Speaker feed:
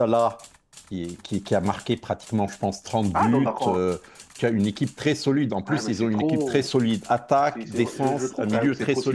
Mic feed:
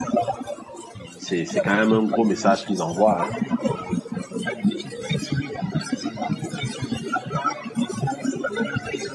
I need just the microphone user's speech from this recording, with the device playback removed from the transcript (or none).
C'est, c'est quand même un gros message qu'ils envoient. Hein.